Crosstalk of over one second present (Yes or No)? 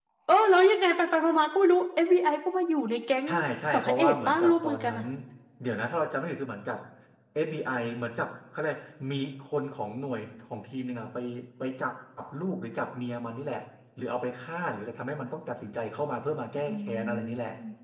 Yes